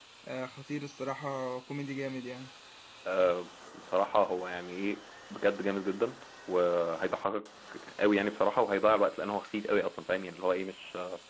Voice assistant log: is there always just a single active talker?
Yes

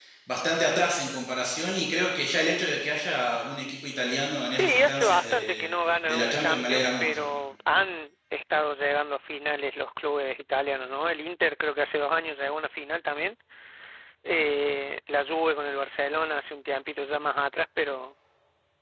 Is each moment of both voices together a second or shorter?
No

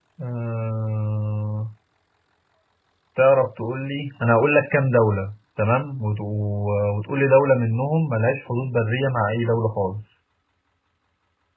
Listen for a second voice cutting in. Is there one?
No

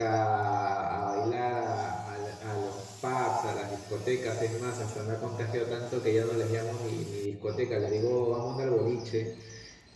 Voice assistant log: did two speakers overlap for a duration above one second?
No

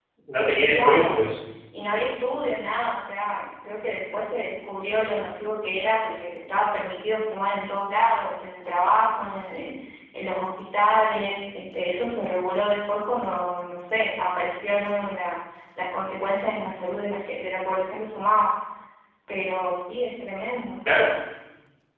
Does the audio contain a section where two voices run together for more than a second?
No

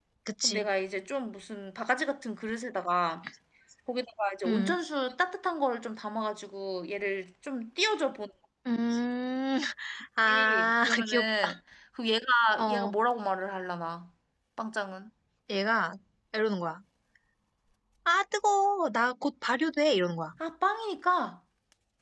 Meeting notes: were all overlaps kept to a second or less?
No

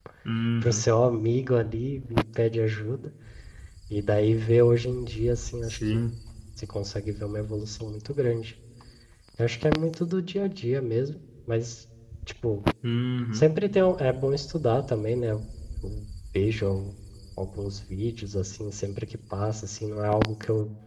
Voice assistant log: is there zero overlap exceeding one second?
Yes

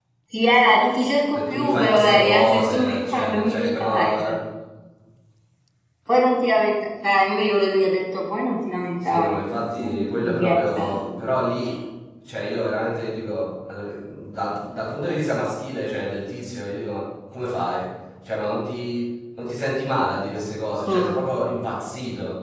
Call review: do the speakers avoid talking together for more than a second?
No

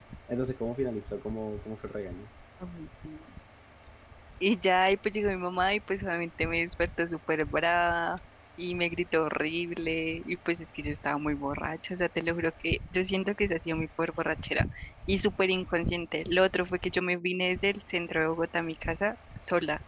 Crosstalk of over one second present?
No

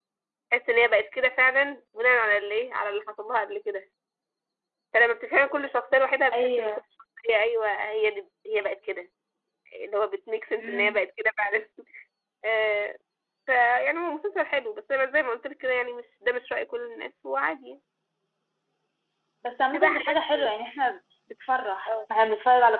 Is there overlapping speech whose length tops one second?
No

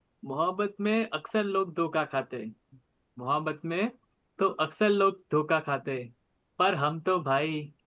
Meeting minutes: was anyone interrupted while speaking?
No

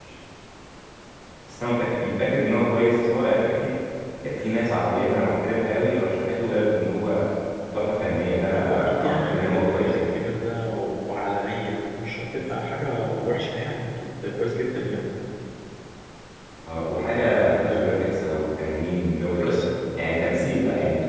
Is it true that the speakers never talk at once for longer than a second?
No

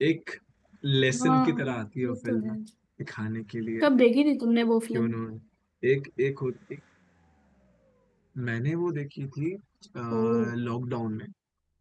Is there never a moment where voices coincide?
No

